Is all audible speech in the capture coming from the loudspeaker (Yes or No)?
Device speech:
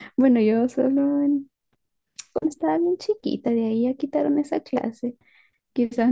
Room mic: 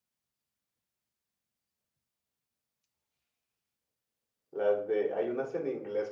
No